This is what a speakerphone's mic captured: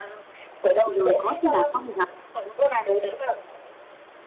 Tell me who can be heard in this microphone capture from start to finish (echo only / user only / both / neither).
both